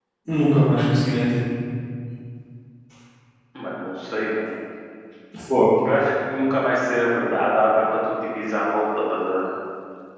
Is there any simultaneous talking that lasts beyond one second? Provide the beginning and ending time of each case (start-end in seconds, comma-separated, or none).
none